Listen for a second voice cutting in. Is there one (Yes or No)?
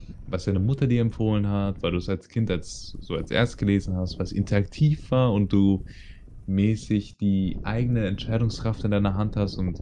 No